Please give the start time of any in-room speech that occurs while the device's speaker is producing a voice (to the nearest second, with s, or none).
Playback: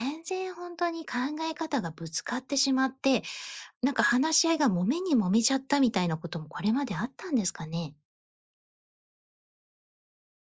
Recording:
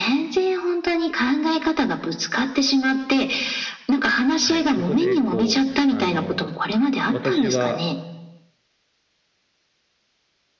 4 s